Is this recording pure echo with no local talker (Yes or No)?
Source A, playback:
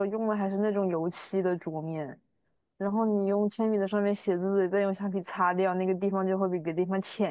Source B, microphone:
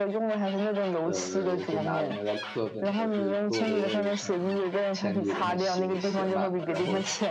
No